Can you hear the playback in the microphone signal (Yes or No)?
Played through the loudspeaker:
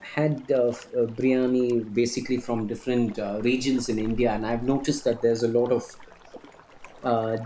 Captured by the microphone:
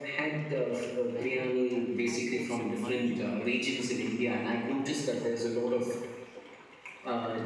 Yes